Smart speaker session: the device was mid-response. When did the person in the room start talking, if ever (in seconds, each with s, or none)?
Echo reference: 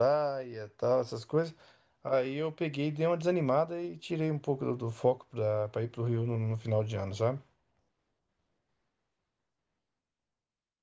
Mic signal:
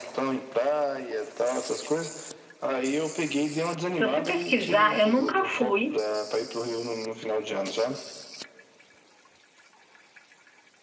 4.0 s